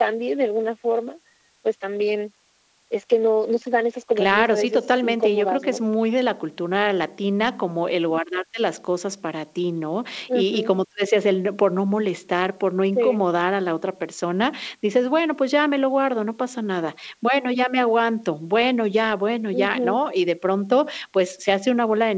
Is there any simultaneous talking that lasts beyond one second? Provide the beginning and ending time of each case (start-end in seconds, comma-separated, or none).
4.2-5.8